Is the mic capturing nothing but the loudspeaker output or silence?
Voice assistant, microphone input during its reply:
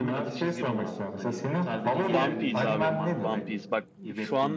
No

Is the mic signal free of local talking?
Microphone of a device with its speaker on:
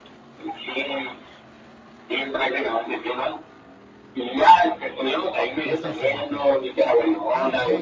No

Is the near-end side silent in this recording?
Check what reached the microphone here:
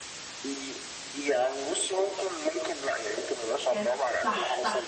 No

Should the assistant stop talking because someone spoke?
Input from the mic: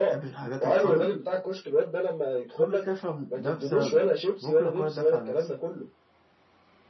Yes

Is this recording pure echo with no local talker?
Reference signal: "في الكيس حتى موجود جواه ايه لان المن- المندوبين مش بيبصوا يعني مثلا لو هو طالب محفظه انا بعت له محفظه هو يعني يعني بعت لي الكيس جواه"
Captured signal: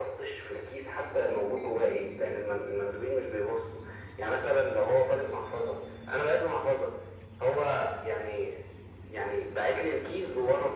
Yes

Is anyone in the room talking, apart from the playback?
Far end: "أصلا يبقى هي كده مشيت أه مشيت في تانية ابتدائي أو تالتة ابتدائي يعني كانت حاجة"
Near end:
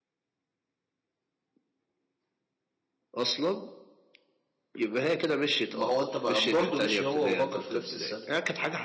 Yes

